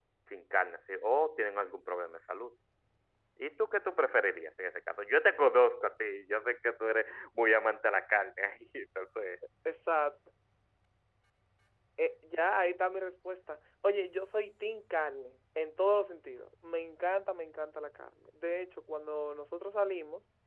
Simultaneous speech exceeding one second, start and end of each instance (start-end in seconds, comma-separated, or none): none